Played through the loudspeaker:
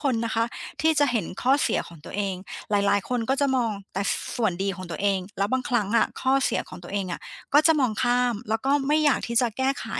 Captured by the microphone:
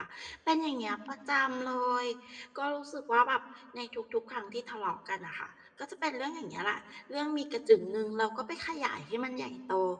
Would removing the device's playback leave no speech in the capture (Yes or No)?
No